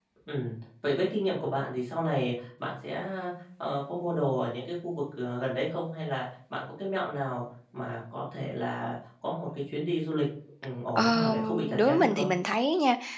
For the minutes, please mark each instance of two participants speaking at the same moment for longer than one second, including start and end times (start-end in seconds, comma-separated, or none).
11.0-12.3